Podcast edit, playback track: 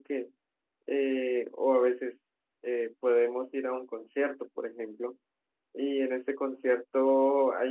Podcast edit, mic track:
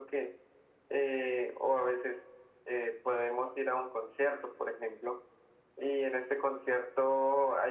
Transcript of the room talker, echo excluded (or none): none